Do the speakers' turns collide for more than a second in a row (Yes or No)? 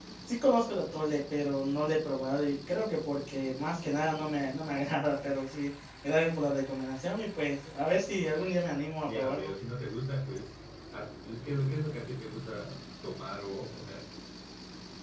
No